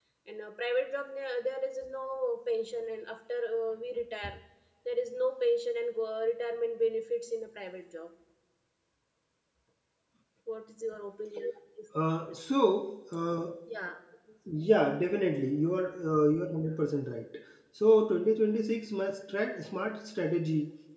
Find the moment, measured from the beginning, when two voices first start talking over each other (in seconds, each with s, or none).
none